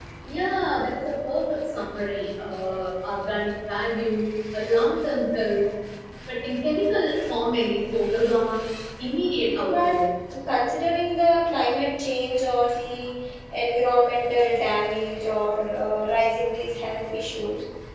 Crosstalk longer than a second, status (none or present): none